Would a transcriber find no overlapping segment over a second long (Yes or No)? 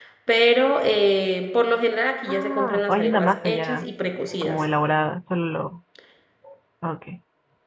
No